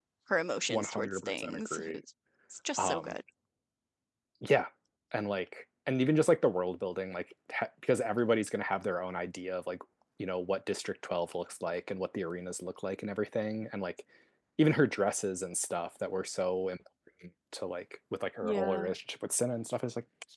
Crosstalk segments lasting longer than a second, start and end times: 0.7-2.0

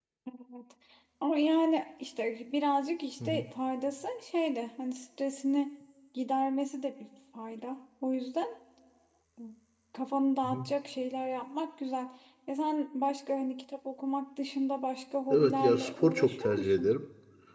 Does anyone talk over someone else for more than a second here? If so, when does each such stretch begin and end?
15.3-16.9

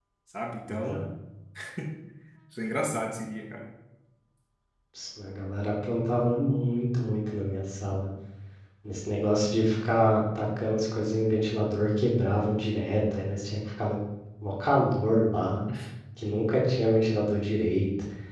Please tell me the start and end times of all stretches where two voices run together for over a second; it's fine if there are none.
none

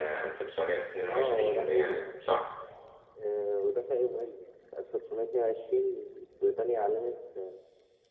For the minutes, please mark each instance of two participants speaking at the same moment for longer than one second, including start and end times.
1.1-2.3

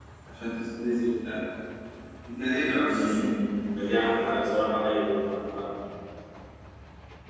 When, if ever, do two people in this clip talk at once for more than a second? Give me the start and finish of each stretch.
none

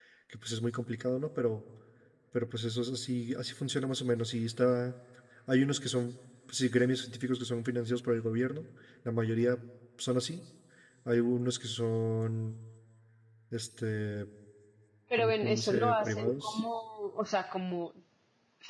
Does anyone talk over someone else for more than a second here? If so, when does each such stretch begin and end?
15.2-16.6

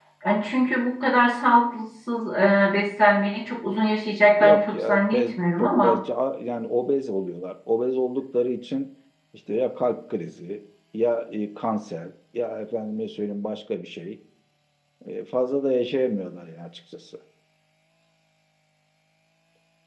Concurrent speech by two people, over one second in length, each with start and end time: 4.4-5.9

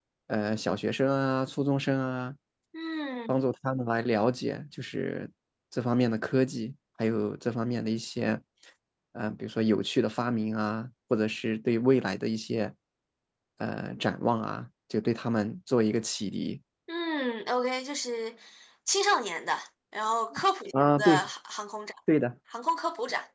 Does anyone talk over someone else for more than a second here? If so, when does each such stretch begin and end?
none

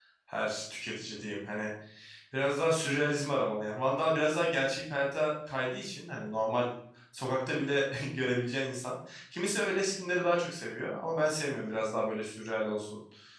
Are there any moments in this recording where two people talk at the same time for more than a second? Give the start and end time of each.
none

